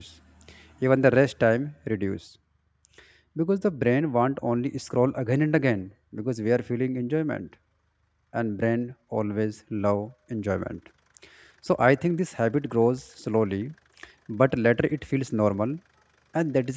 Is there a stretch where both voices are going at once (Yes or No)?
No